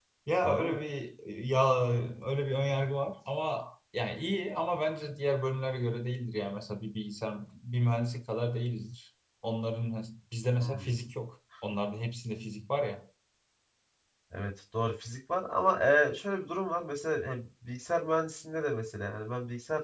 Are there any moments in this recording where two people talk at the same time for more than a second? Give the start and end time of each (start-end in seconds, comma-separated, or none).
none